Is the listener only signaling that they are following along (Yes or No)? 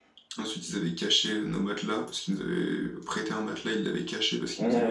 No